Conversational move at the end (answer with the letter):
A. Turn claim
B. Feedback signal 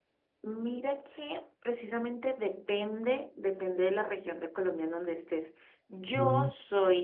B